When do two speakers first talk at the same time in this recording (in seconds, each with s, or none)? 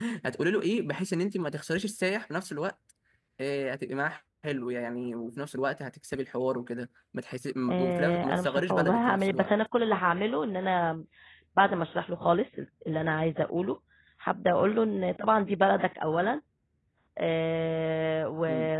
7.7 s